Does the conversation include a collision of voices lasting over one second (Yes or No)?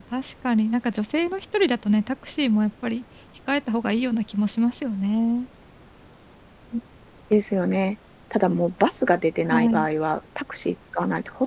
No